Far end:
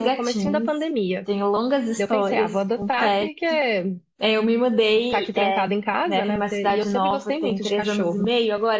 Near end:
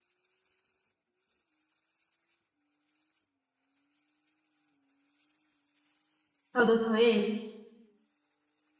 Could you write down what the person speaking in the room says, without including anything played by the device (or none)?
tu adotou ele?